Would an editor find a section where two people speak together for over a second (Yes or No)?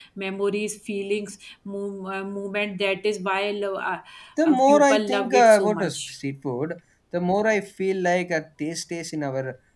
Yes